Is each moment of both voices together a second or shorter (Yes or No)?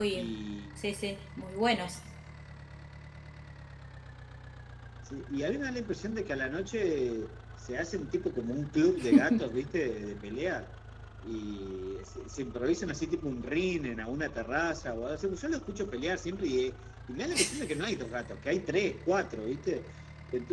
Yes